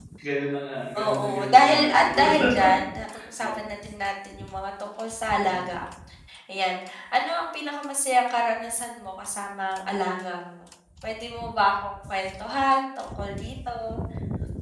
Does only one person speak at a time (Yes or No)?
No